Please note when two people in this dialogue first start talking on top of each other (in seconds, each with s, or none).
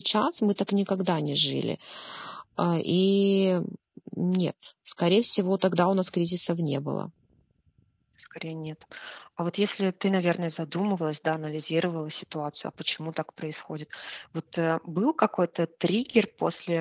none